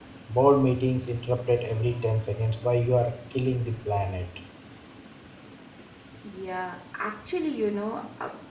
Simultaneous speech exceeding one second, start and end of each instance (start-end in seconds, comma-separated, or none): none